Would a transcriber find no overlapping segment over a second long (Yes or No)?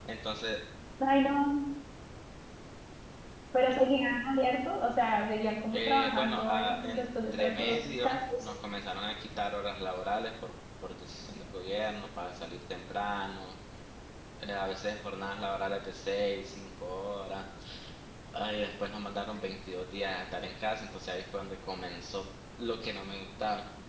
No